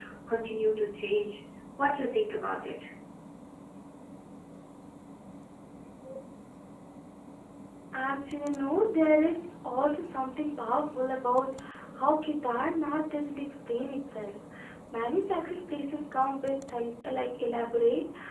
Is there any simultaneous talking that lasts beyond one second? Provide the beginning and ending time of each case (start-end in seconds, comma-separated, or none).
none